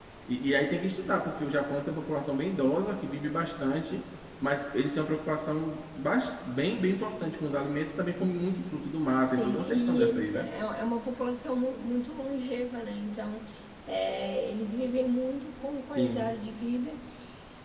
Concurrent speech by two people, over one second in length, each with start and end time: 9.2-10.5

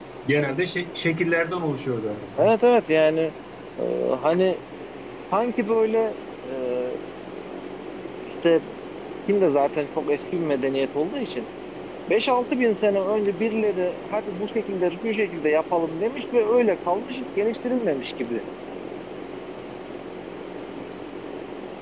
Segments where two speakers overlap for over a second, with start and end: none

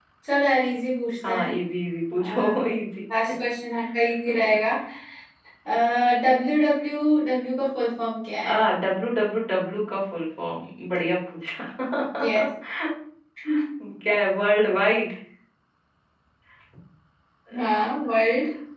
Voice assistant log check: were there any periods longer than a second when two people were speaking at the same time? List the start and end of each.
none

